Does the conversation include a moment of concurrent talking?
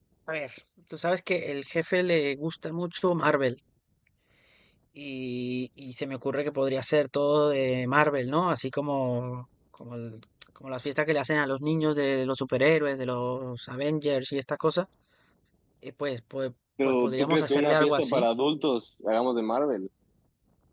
Yes, from 16.8 s

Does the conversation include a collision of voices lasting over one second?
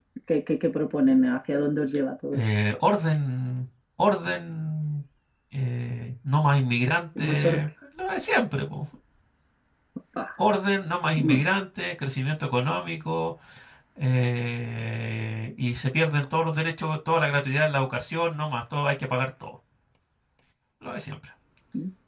No

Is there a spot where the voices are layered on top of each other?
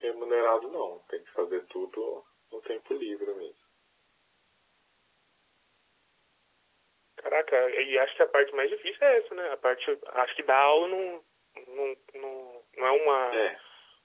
No

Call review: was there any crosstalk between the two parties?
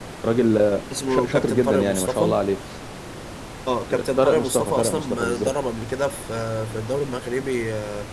Yes, from 1.1 s

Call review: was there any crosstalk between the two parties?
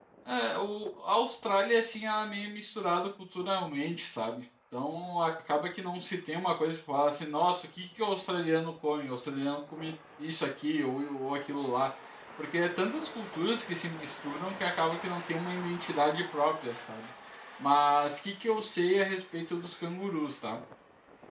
No

